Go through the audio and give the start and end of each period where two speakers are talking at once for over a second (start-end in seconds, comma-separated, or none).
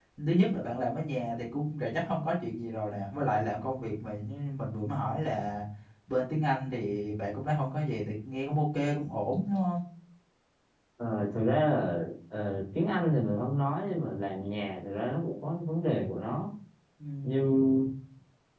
none